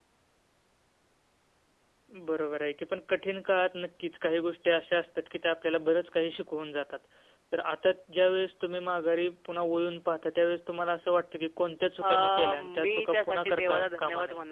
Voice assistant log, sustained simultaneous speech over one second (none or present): present